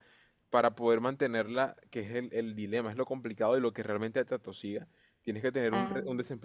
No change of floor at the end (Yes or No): Yes